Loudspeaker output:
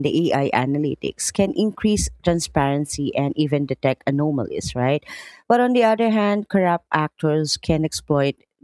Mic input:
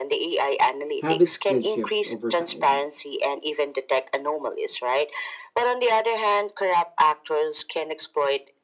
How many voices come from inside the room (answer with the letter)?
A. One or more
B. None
A